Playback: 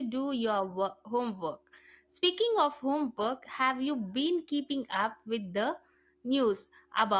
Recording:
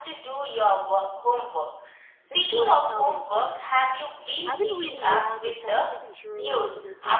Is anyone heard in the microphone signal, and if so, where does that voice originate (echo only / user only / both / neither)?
both